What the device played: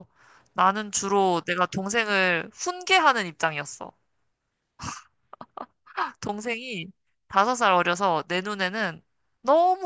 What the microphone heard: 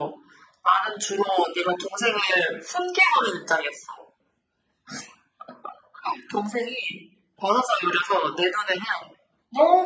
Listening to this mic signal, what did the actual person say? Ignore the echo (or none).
none